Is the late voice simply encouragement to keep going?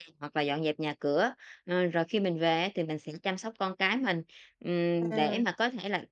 Yes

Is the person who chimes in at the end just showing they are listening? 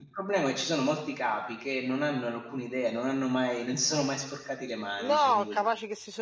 No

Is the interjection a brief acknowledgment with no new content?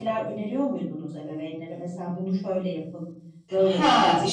No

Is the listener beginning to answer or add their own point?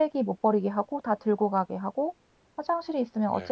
No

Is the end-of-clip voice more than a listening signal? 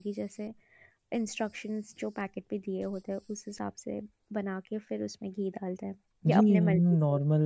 Yes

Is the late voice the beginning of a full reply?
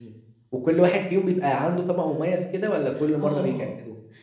Yes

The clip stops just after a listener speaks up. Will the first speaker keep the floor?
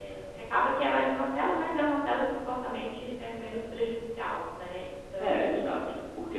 No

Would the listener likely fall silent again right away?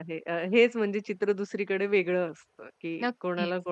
Yes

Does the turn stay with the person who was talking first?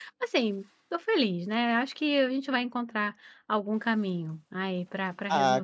No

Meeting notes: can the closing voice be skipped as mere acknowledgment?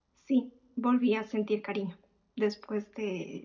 Yes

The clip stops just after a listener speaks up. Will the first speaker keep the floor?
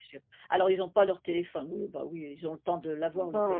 No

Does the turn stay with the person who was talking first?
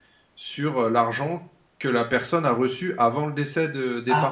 No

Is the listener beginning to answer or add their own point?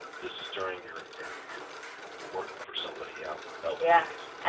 Yes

